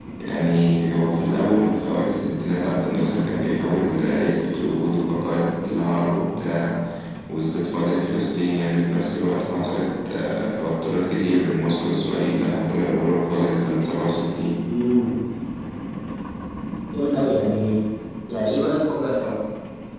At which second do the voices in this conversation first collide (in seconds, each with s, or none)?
none